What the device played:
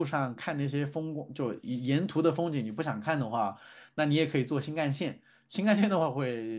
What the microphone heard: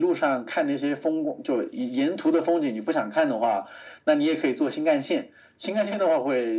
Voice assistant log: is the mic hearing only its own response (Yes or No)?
Yes